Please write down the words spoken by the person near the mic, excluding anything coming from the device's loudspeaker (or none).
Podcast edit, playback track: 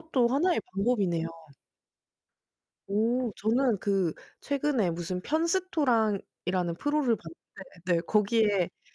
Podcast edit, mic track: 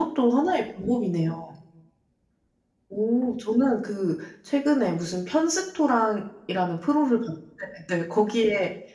none